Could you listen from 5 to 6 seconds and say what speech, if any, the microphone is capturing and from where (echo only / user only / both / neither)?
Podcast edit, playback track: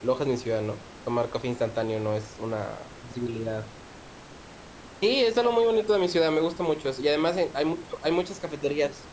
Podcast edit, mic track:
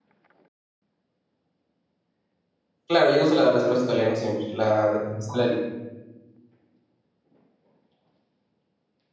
user only